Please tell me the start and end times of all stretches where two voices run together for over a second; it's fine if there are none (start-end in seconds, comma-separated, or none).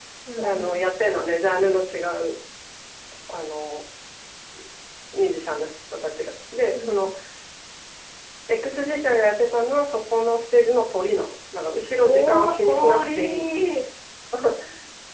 12.0-13.5